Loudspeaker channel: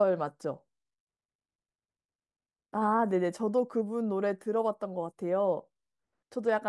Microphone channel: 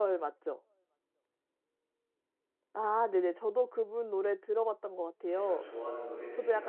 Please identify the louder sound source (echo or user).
echo